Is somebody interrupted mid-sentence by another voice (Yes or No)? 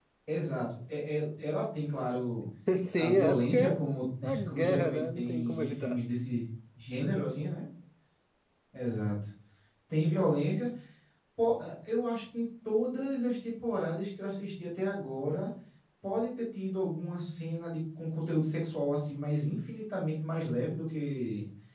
Yes